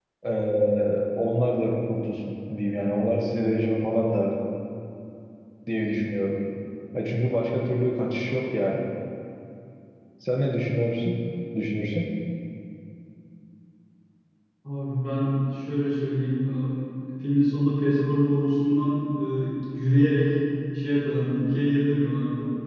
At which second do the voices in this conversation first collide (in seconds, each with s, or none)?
none